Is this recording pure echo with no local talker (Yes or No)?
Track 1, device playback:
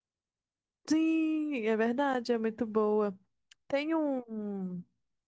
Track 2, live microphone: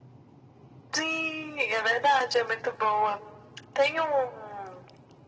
Yes